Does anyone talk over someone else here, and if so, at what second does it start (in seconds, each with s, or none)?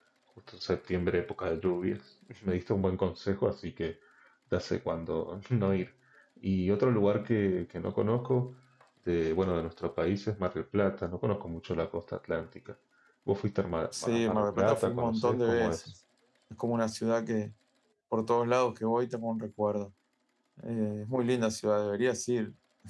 14.0 s